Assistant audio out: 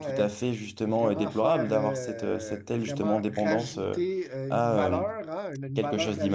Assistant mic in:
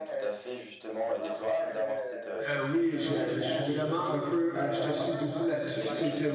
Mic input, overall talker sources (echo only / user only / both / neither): both